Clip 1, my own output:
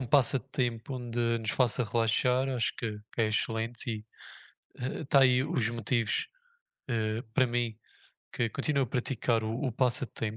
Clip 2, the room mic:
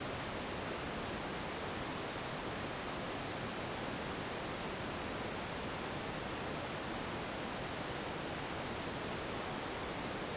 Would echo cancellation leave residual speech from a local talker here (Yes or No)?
No